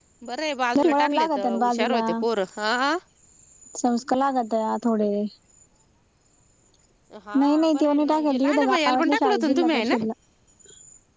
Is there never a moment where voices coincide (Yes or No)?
No